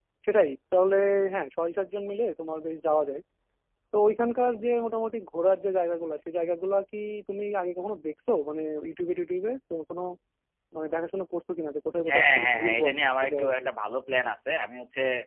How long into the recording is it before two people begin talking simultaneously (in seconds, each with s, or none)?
12.1 s